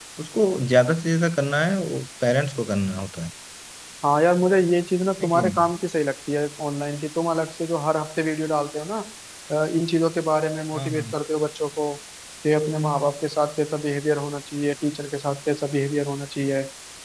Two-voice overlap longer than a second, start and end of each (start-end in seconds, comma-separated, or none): none